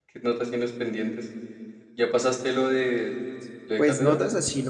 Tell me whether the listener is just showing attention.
No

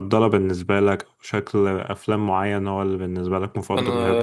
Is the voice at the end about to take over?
Yes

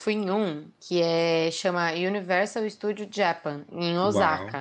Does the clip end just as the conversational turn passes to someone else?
Yes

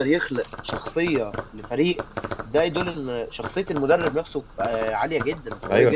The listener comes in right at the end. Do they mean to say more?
Yes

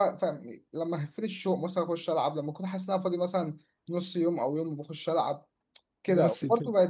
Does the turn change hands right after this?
No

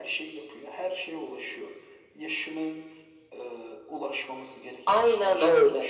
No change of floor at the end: No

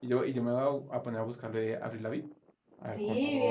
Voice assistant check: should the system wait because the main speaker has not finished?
No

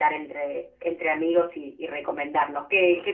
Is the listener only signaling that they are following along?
Yes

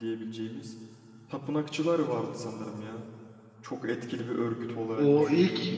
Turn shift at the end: Yes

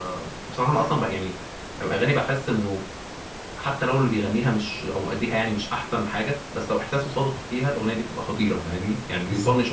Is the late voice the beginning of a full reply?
Yes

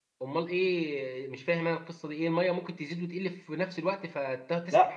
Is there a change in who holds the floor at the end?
Yes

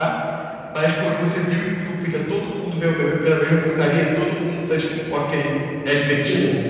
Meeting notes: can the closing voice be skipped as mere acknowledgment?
No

